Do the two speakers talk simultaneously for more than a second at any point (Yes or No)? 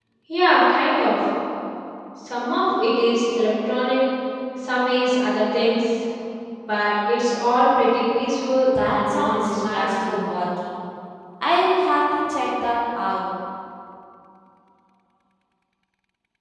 Yes